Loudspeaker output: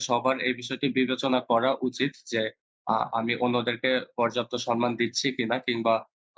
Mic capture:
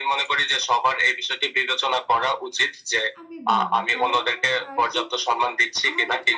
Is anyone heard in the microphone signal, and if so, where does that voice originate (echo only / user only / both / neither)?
both